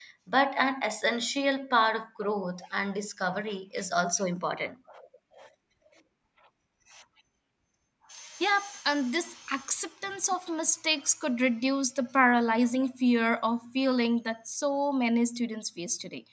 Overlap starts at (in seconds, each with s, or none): none